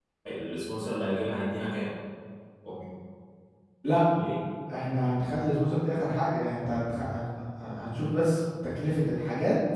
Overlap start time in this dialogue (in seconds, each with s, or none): none